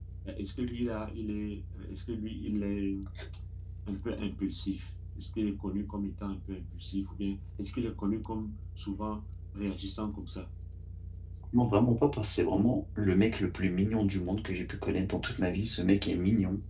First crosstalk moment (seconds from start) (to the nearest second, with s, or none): none